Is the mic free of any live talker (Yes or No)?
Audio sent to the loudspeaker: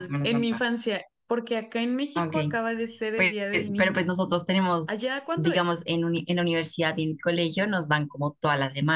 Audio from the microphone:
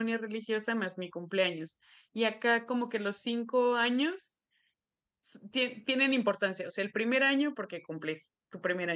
No